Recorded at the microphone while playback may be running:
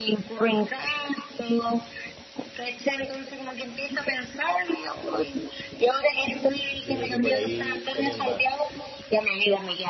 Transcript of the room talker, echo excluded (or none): Yo creo que por ahí también va.